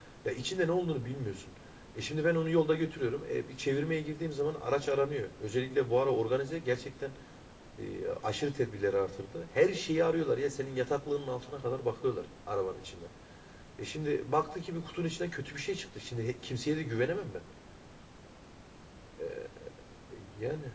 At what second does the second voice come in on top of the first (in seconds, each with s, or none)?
none